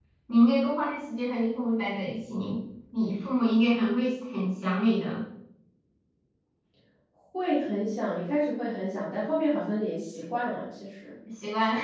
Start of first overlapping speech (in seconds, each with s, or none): none